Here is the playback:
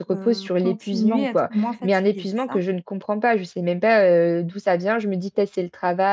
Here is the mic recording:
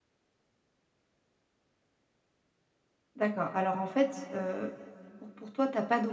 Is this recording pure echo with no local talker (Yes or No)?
No